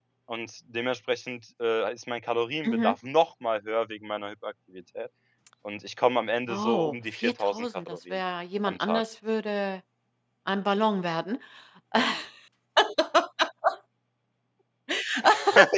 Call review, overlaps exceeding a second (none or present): present